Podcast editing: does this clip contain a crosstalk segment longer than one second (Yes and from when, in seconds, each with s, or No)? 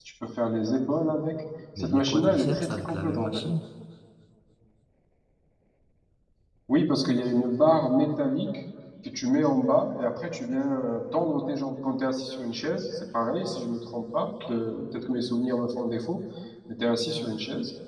Yes, from 1.8 s